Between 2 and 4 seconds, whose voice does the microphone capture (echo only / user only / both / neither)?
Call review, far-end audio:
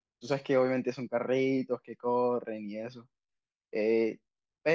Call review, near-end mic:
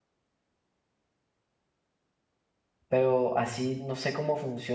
user only